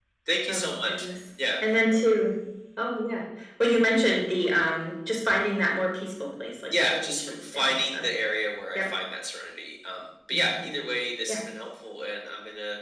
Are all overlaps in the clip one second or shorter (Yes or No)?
No